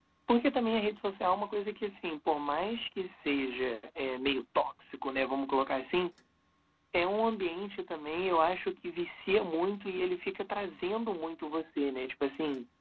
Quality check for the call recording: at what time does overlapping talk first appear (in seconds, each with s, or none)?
none